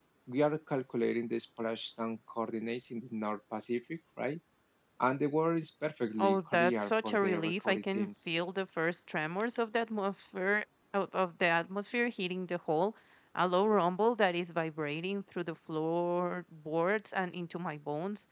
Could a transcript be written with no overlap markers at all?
No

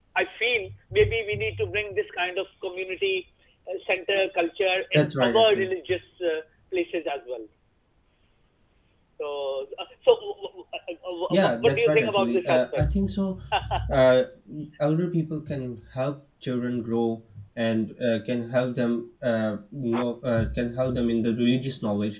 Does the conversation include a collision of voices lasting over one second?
Yes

